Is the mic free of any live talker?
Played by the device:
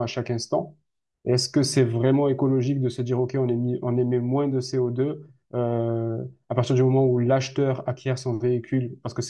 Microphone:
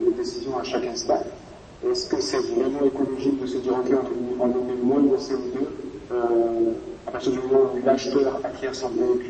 Yes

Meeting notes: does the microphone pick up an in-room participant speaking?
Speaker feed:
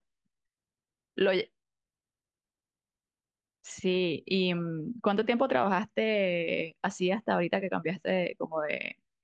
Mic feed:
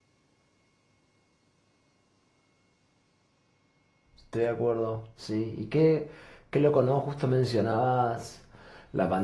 Yes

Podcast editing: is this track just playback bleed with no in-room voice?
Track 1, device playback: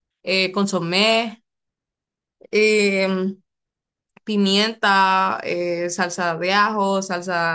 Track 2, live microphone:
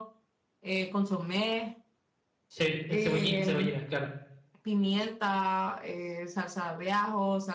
No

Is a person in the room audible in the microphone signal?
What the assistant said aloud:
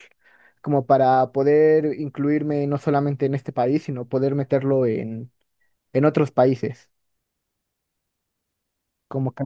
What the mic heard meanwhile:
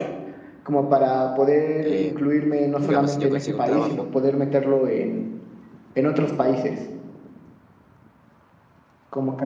Yes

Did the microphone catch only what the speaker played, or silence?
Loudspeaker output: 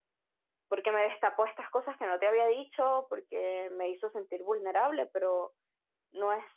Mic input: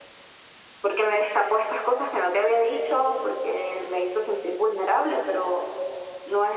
Yes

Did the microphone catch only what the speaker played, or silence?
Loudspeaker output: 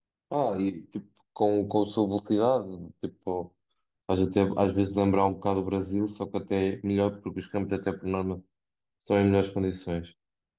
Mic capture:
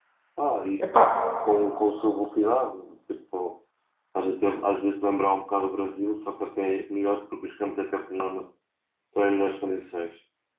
No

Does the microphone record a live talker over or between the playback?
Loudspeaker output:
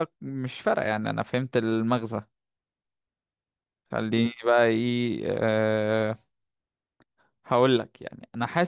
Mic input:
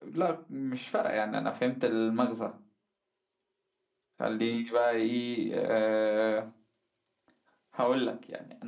No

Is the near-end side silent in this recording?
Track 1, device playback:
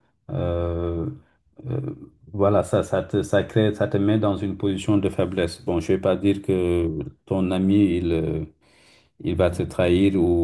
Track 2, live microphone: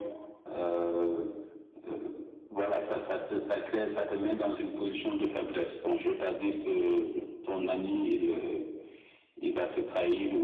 Yes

